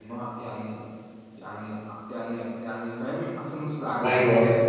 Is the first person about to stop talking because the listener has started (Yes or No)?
Yes